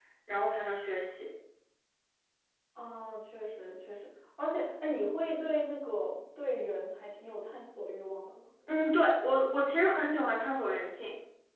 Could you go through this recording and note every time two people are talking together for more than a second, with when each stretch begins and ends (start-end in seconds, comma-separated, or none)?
none